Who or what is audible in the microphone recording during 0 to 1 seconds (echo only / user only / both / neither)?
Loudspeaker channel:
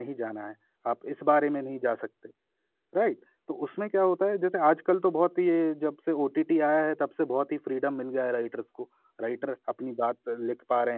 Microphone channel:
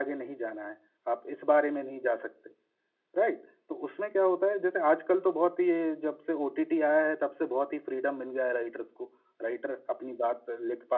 echo only